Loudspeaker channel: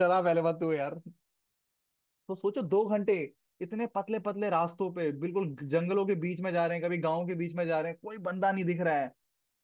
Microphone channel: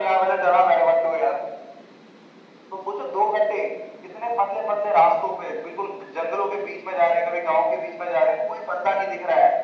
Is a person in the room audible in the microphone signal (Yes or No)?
No